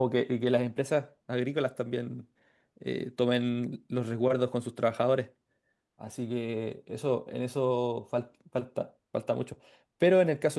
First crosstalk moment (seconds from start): none

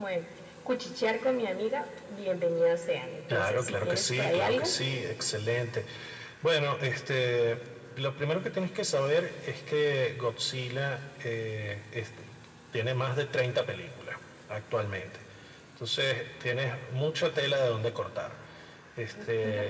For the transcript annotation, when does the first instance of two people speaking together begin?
3.3 s

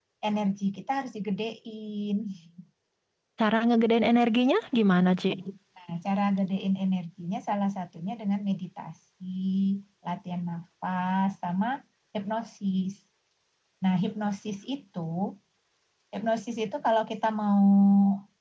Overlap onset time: none

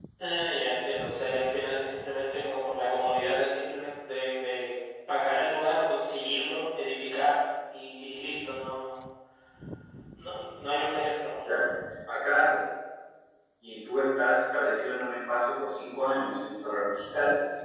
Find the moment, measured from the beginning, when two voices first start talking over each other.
none

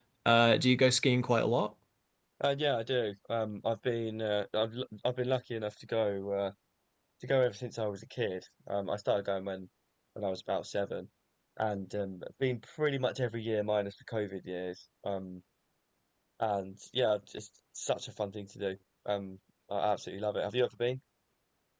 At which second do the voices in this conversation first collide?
none

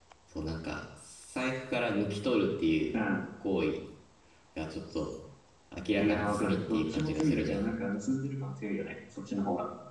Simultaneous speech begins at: 6.0 s

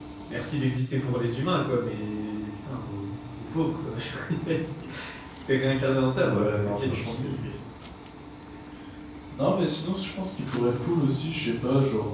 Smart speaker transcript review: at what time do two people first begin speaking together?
6.2 s

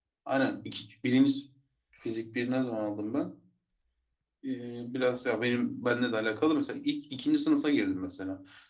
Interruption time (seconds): none

